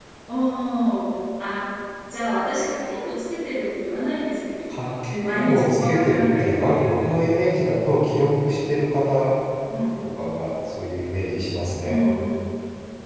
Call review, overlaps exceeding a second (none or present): present